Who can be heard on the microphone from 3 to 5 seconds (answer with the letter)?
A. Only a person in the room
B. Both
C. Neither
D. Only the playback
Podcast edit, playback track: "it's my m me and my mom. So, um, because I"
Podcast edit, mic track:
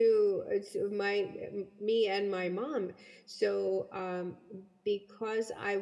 D